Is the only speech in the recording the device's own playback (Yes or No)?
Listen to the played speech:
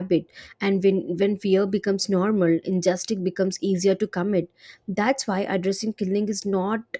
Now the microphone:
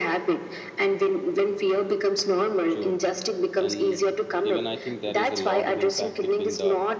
No